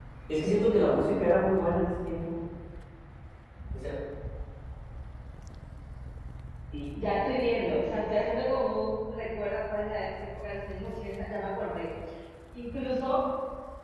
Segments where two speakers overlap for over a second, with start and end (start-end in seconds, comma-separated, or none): none